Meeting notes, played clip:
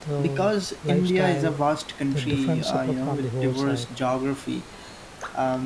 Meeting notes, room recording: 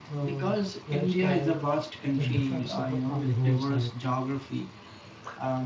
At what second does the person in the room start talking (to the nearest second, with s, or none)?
none